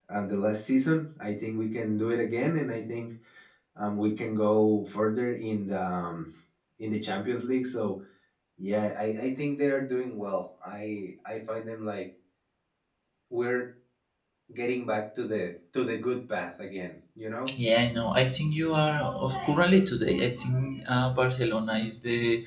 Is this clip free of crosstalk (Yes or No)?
Yes